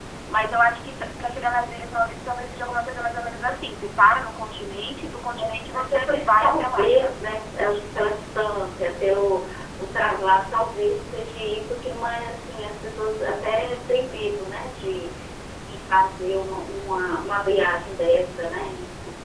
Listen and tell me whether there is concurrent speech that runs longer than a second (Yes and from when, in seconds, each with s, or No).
Yes, from 5.3 s